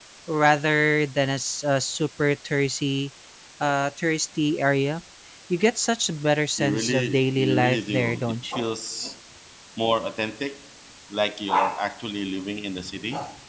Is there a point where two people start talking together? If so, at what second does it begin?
6.6 s

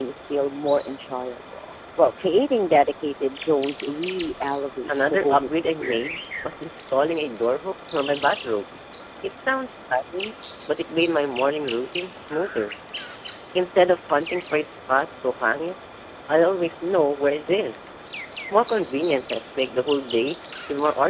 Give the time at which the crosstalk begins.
4.9 s

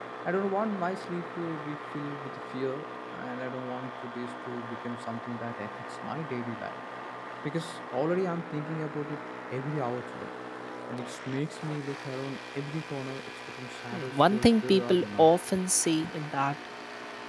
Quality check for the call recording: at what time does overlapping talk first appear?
13.9 s

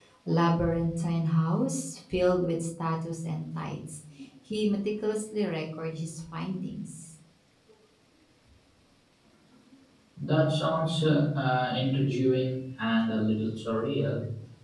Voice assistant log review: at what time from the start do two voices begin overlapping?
none

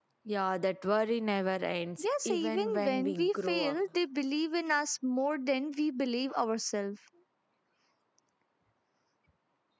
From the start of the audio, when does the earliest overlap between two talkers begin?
2.0 s

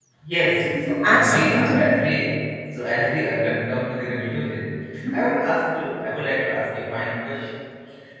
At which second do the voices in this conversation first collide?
0.6 s

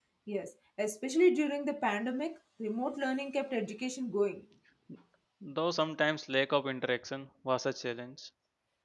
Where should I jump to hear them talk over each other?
none

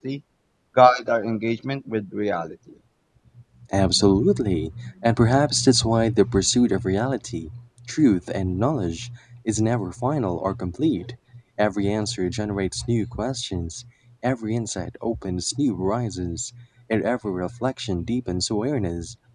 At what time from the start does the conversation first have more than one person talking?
none

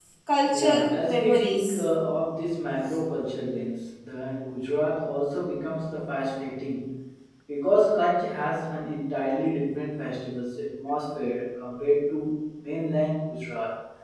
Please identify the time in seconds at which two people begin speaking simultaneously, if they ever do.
0.5 s

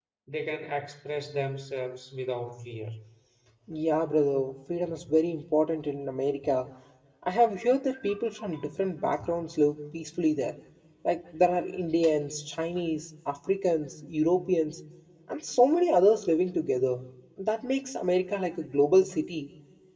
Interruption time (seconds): none

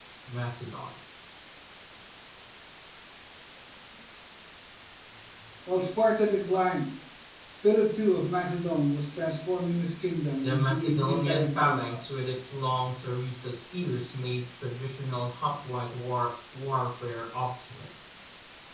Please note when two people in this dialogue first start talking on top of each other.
10.4 s

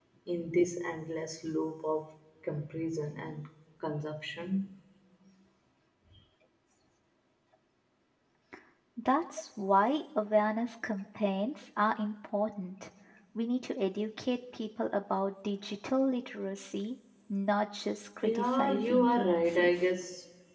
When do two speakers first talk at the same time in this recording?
18.2 s

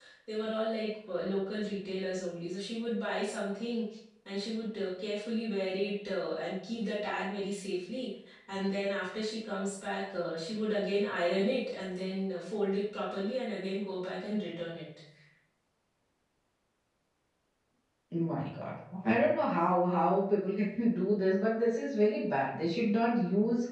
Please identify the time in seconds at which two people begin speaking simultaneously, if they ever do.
none

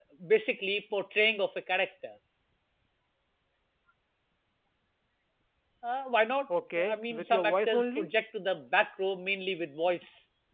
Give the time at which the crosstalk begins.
6.9 s

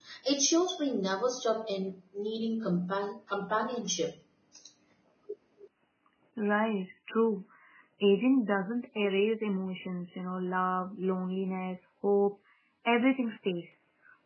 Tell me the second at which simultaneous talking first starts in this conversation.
none

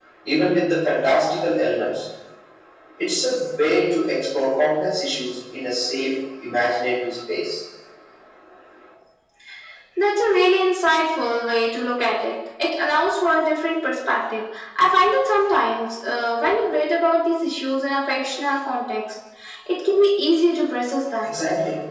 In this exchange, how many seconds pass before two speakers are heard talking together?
none

